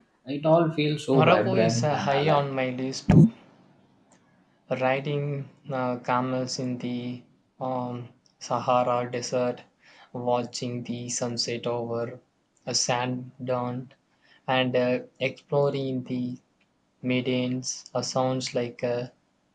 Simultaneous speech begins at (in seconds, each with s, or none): 1.1 s